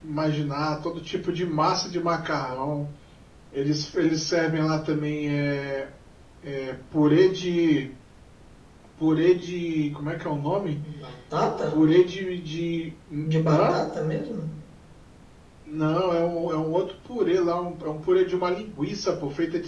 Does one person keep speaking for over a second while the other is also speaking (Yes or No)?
No